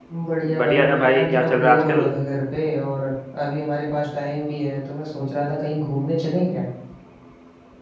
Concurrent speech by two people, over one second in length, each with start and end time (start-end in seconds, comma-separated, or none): 0.6-2.1